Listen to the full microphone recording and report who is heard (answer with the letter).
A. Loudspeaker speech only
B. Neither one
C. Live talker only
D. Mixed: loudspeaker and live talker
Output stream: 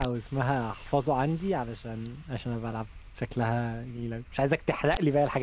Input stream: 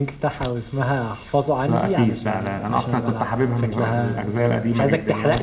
D